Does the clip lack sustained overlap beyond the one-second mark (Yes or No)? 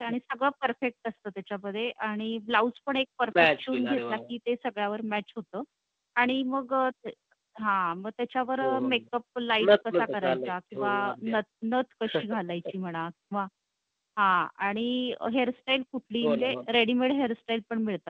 No